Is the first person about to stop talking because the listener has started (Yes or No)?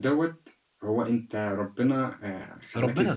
Yes